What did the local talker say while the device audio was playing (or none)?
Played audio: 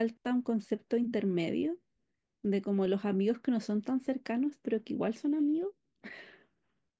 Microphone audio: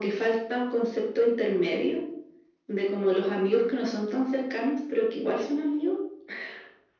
none